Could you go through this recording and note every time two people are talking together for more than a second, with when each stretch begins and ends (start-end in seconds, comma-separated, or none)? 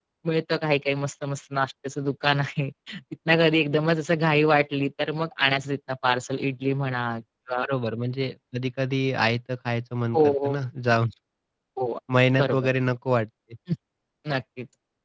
none